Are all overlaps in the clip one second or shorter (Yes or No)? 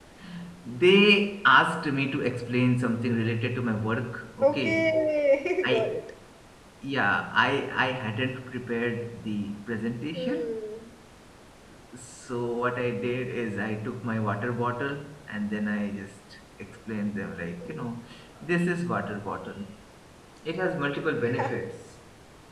Yes